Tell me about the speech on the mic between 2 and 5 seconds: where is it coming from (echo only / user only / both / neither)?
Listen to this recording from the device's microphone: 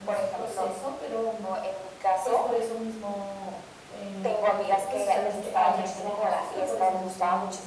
both